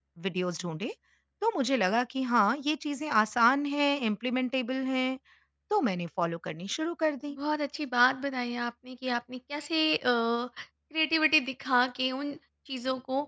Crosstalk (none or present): none